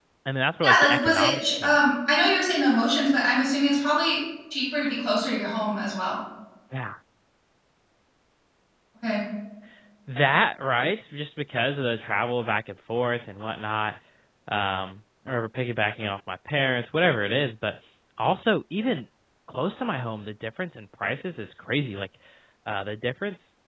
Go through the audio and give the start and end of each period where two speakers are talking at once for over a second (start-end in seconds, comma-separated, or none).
0.6-1.9